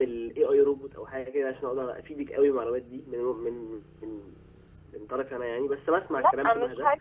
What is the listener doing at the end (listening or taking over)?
taking over